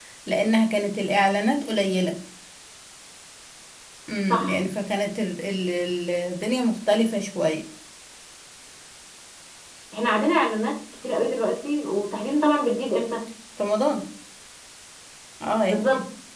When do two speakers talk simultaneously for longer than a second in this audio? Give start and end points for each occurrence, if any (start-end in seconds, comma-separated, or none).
none